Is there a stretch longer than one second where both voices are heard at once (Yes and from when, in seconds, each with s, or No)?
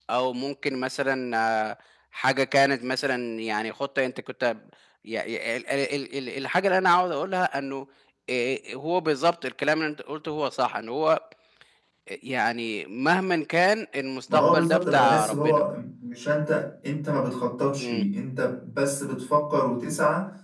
Yes, from 14.3 s